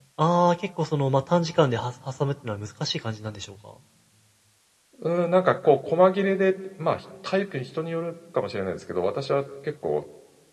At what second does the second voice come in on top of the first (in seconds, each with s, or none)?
none